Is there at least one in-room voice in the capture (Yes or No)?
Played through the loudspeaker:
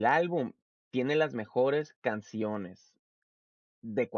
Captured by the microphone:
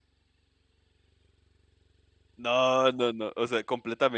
Yes